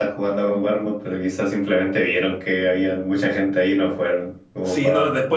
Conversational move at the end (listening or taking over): taking over